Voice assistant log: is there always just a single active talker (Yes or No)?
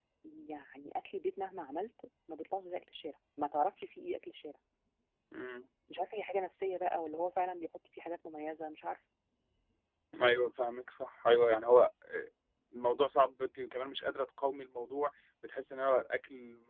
Yes